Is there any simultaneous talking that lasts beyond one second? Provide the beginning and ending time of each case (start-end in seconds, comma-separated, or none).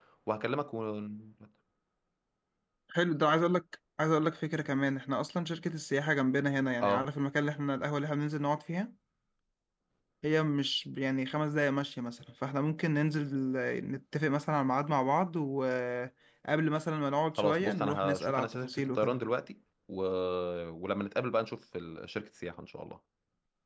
17.4-19.2